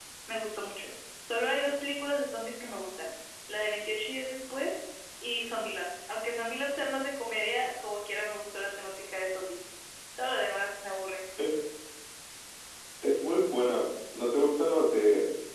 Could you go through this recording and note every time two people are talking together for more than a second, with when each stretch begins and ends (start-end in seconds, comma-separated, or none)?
none